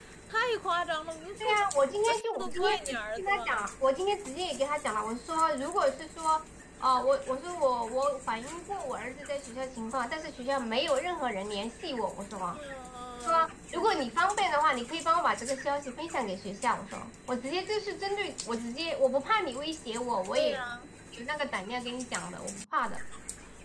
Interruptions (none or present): present